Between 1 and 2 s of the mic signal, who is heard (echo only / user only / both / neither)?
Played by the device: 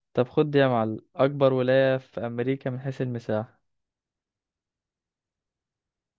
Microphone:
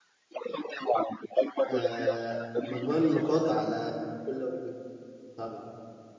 both